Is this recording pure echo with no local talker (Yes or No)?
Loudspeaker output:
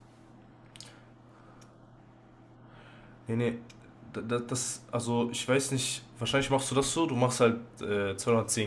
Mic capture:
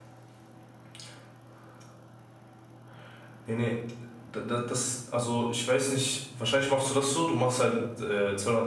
Yes